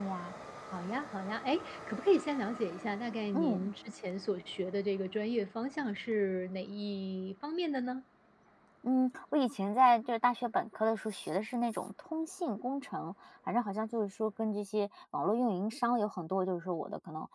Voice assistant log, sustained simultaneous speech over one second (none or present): none